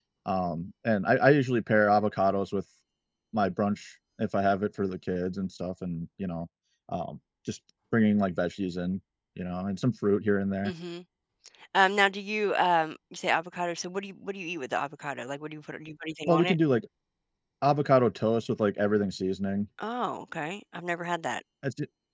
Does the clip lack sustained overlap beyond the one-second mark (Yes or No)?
Yes